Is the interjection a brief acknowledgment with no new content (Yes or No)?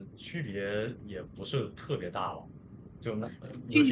No